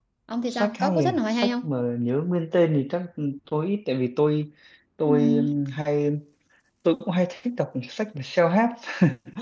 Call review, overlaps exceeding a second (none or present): present